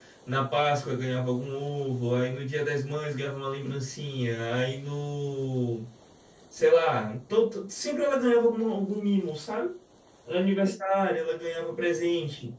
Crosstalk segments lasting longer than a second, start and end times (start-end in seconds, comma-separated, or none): none